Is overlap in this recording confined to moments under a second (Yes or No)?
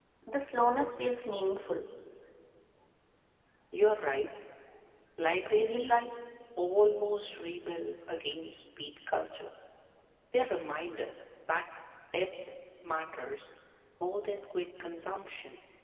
Yes